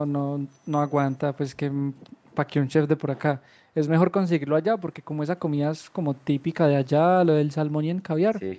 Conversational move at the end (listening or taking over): listening